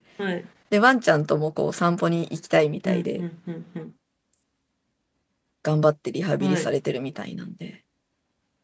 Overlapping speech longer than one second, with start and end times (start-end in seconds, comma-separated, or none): none